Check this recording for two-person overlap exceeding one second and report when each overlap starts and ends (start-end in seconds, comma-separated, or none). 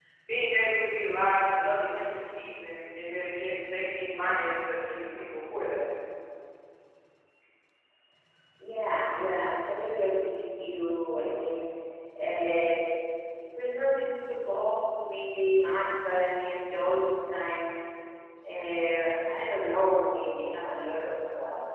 none